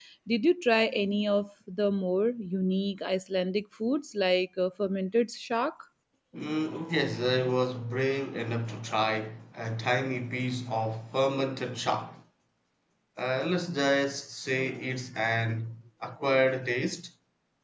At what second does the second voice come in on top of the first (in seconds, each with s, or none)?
none